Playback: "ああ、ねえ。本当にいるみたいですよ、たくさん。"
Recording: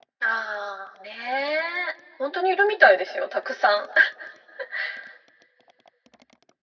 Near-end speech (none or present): none